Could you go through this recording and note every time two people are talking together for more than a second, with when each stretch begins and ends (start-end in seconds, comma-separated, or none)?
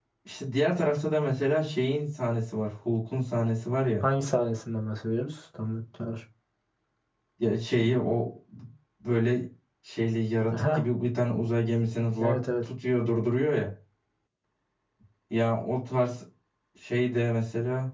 none